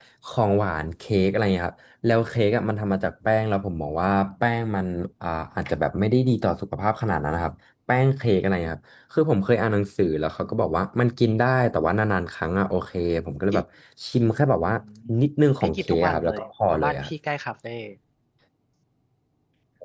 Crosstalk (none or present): present